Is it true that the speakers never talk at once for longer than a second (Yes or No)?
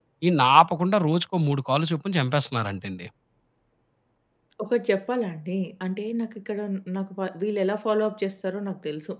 Yes